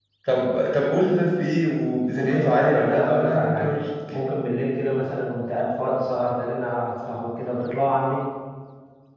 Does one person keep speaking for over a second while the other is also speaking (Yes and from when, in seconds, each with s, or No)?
Yes, from 2.1 s